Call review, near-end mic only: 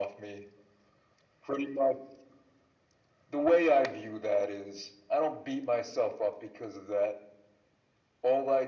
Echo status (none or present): present